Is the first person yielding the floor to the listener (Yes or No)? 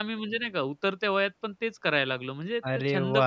Yes